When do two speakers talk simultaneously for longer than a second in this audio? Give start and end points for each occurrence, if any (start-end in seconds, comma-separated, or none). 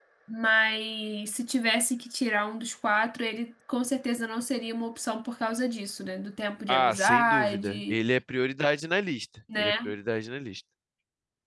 6.7-8.0